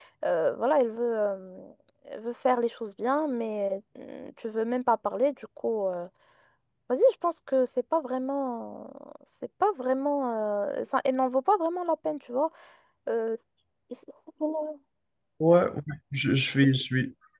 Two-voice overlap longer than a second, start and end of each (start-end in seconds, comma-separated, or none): none